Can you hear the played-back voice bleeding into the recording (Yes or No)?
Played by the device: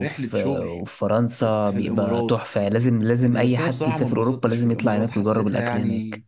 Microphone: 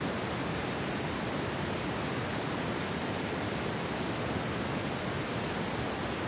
No